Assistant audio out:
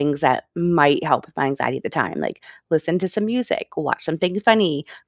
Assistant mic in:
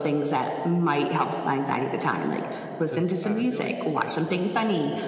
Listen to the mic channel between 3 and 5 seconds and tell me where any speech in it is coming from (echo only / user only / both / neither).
both